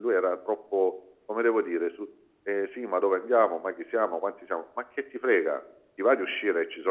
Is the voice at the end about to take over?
No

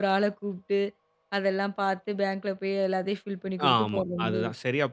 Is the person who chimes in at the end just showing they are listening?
No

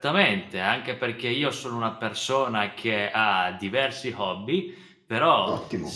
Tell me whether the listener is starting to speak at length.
No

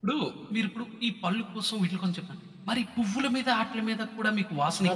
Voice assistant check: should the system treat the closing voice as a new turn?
Yes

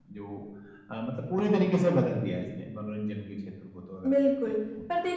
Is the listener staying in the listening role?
No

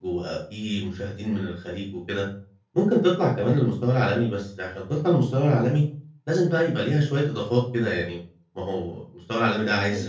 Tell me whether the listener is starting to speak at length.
No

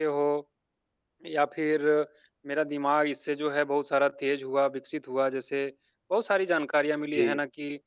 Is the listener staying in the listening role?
Yes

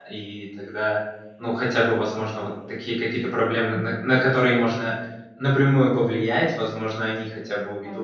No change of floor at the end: Yes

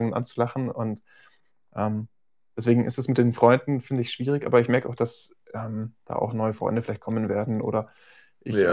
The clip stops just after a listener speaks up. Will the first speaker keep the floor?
No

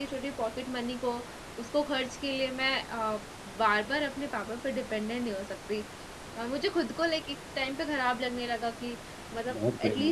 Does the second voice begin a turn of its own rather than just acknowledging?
No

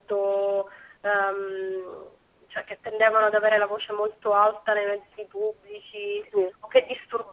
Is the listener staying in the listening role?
Yes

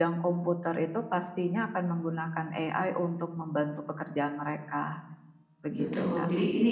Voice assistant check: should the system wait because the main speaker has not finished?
No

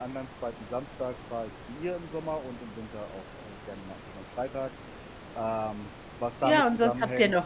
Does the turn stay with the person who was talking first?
No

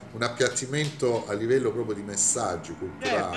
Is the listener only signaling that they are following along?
No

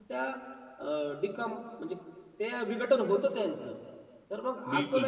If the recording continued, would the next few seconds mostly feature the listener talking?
No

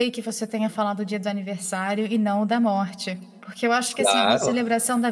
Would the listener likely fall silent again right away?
Yes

